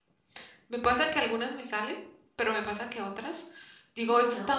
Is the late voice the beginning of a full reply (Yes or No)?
No